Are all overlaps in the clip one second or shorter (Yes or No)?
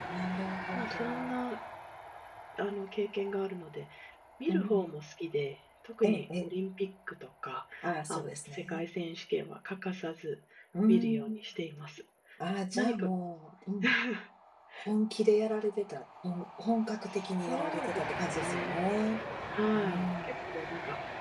No